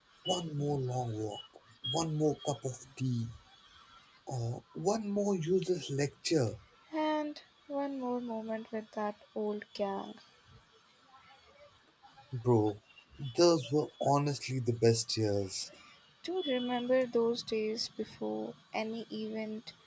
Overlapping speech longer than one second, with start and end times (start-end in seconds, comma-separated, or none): none